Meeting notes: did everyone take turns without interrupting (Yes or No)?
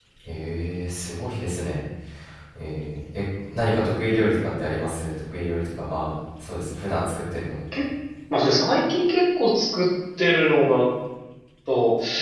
Yes